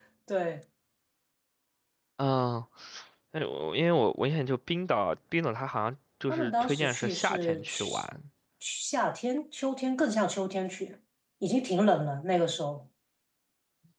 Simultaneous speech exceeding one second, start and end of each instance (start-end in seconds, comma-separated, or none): 6.3-8.1